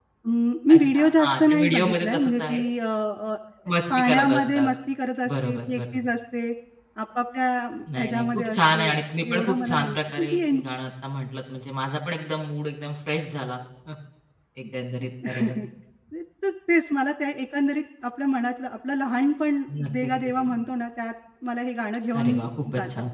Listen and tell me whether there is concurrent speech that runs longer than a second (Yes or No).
Yes